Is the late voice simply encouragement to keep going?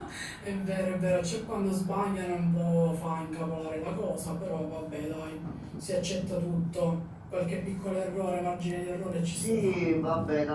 No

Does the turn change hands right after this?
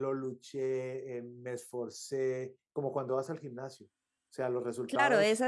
Yes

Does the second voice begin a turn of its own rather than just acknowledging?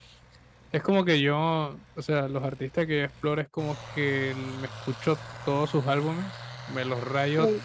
No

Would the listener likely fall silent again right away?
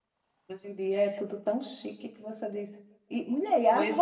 Yes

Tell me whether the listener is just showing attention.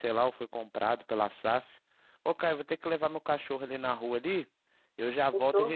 Yes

